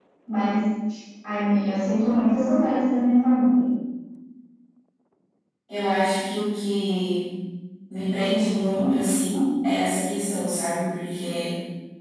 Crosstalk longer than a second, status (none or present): none